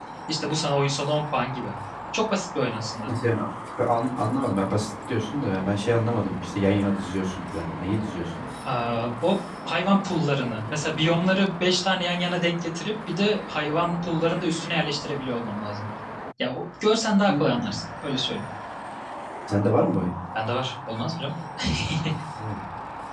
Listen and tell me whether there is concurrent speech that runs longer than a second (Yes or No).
No